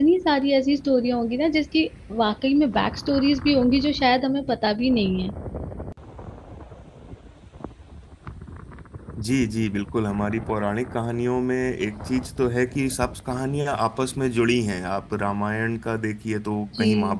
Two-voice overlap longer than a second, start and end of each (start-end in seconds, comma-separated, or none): none